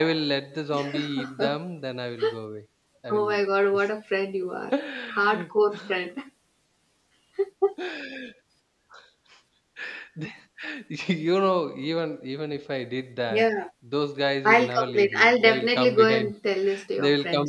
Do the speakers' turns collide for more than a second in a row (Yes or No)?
Yes